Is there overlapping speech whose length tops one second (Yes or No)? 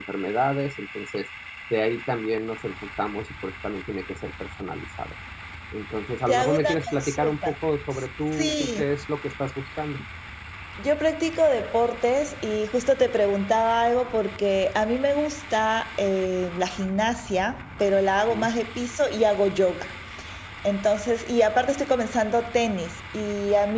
Yes